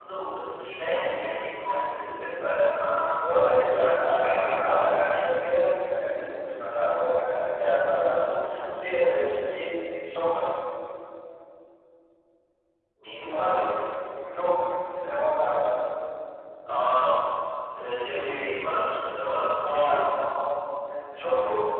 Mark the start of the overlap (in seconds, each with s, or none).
3.7 s